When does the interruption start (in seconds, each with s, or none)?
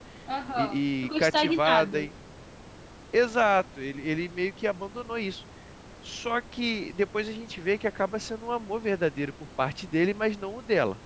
0.6 s